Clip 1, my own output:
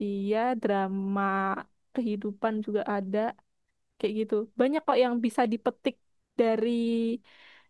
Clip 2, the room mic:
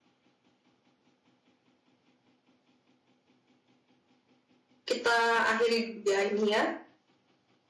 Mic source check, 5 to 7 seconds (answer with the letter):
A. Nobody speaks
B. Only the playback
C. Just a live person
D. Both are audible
C